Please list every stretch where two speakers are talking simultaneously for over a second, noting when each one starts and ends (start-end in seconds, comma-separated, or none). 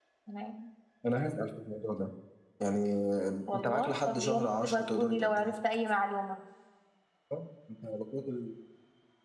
3.5-5.5